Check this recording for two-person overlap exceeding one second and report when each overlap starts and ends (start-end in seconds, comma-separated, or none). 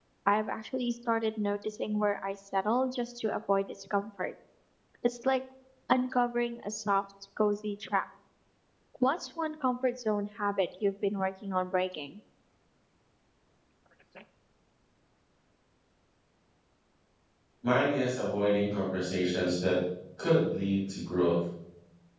none